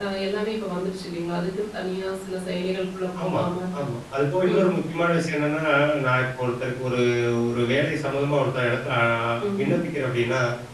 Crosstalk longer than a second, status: none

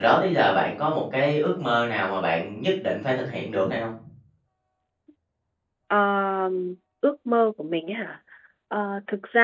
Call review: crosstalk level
none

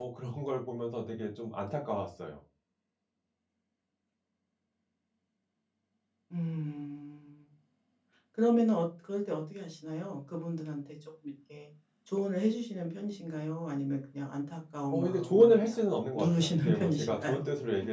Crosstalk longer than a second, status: present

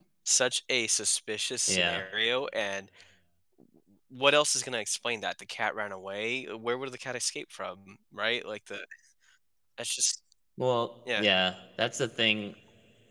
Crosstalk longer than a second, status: none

